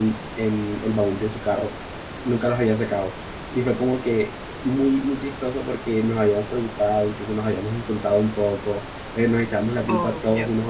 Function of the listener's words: listening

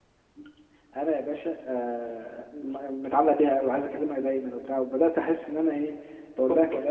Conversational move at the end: listening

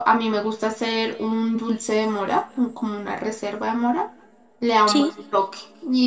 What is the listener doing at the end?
listening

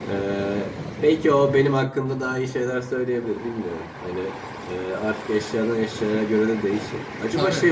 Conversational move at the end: listening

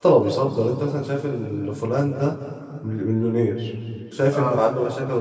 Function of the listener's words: listening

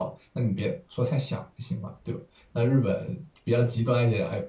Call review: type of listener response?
listening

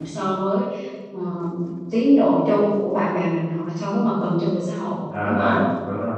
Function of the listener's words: taking over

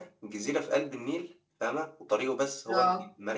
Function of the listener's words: listening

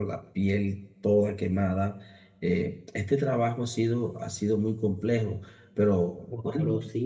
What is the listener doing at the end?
taking over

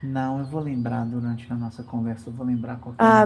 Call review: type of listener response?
taking over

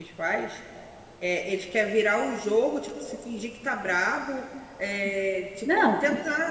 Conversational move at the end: listening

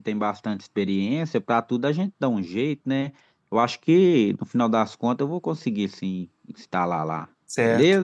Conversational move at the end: taking over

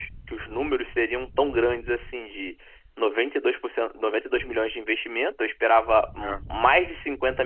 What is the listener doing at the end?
listening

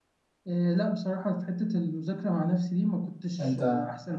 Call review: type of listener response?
listening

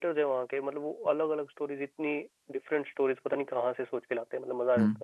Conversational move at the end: taking over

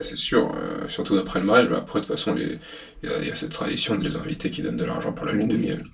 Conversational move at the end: taking over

